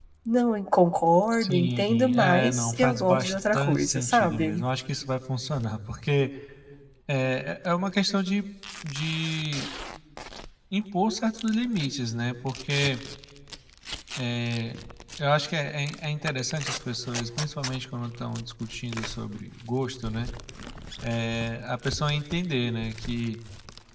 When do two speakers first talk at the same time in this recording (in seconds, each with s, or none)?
1.4 s